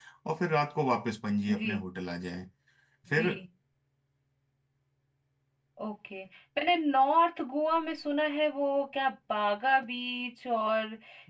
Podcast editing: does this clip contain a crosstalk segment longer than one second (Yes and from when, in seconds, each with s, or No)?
No